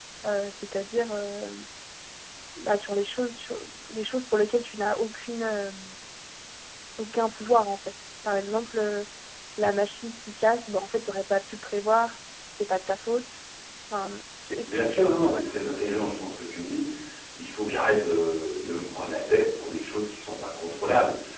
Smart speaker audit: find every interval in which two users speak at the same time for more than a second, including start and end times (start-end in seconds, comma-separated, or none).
14.7-15.9